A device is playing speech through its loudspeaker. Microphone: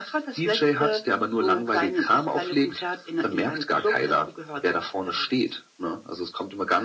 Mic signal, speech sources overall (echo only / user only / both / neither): echo only